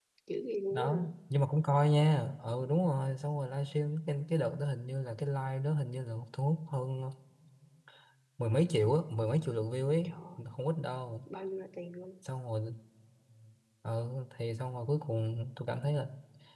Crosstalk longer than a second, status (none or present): none